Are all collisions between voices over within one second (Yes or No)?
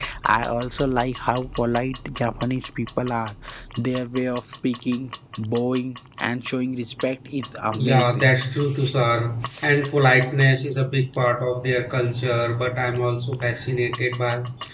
Yes